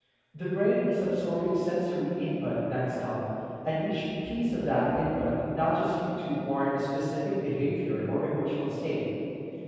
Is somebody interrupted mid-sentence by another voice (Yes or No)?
No